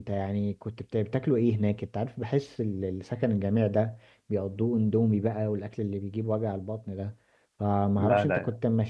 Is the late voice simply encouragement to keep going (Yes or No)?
Yes